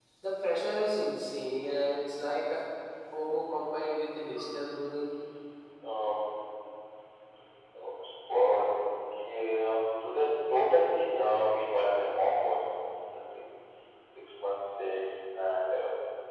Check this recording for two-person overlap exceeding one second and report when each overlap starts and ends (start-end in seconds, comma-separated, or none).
none